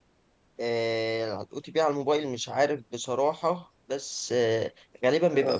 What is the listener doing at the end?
listening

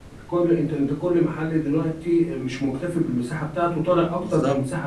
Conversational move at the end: taking over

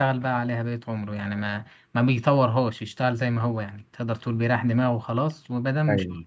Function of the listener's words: listening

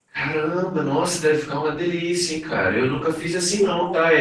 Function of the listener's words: listening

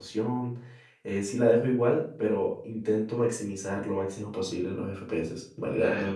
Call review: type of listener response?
taking over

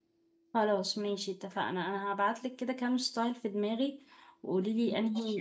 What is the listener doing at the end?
listening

